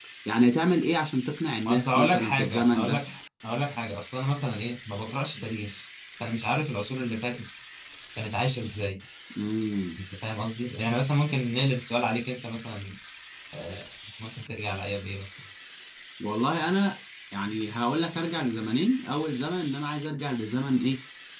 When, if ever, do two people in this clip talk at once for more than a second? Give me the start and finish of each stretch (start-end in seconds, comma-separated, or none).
1.6-3.0